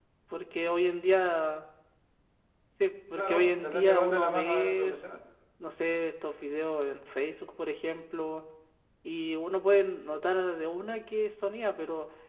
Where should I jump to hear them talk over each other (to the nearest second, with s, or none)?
3 s